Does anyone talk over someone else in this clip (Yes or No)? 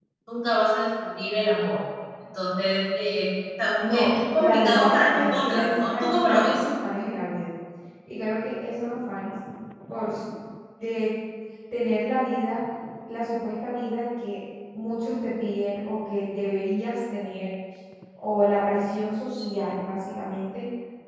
Yes